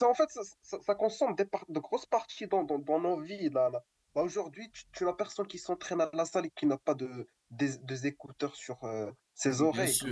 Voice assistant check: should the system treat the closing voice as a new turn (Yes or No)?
Yes